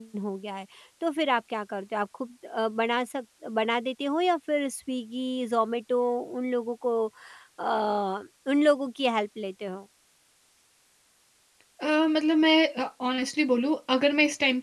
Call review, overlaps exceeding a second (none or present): none